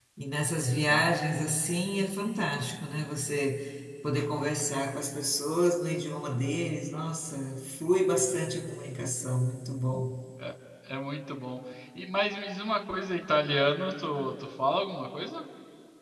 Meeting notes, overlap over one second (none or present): none